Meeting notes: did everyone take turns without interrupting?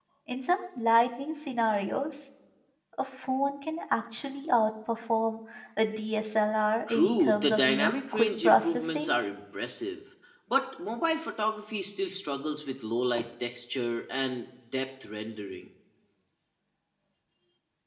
No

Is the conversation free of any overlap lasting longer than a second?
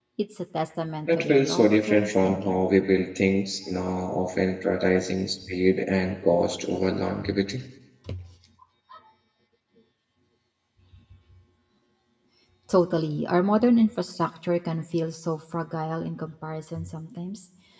No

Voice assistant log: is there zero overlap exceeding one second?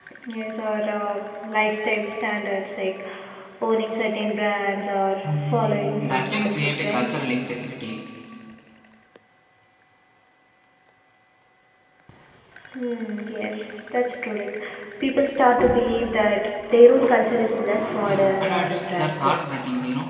No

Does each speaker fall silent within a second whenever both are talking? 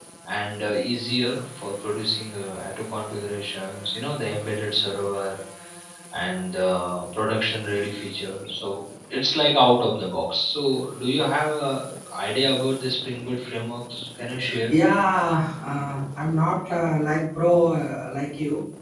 Yes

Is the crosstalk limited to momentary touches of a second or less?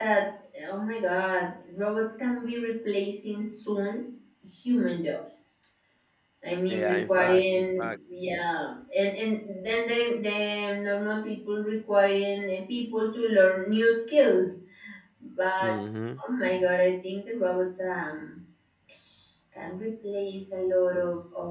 No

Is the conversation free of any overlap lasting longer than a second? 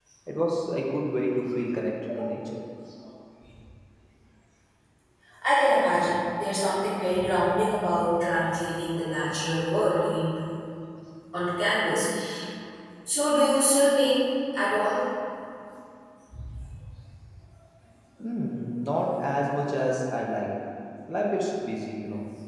Yes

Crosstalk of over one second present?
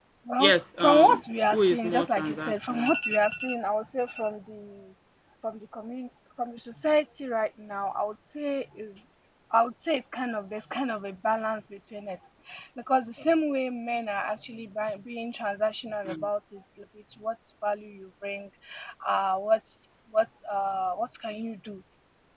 Yes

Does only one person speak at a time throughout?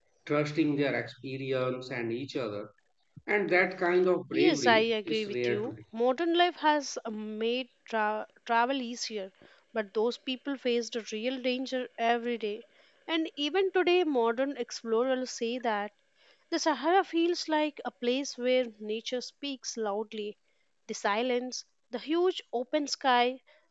No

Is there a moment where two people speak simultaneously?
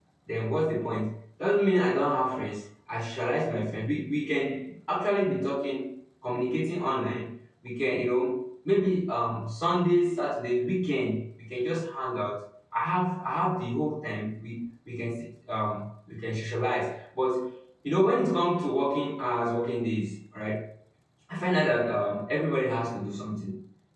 No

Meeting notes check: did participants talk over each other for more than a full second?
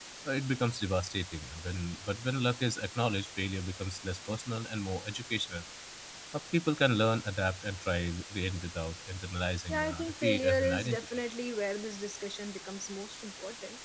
Yes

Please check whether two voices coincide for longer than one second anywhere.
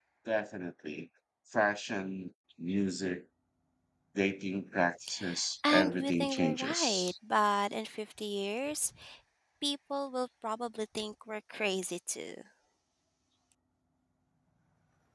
Yes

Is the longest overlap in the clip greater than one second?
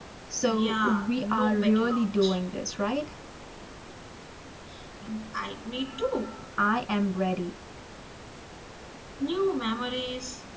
Yes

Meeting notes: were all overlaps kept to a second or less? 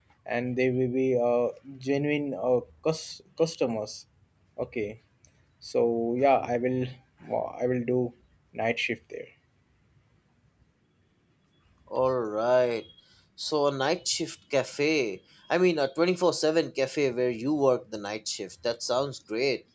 Yes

